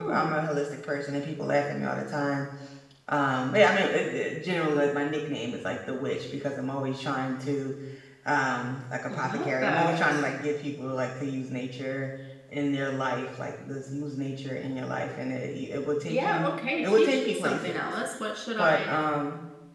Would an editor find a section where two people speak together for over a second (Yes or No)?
Yes